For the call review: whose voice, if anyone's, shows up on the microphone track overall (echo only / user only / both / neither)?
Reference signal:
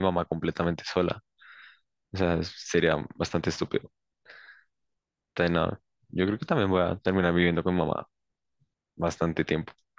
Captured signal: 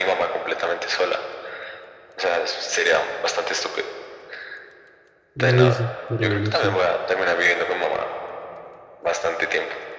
both